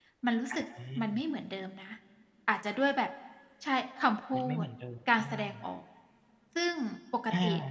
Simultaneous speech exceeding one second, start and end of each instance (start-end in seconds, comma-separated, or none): none